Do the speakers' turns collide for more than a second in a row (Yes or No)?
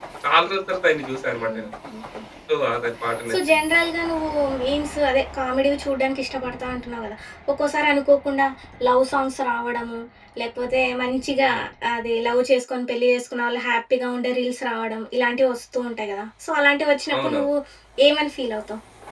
No